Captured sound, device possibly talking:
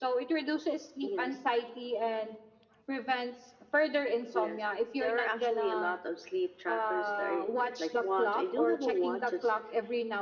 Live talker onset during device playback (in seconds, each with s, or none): none